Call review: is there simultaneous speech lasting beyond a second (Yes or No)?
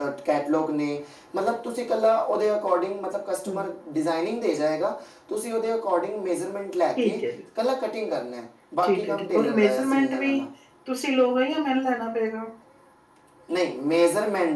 Yes